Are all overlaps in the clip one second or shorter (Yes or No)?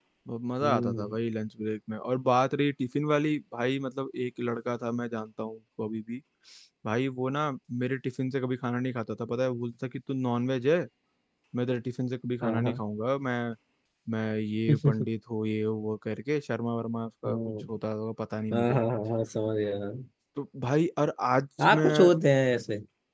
Yes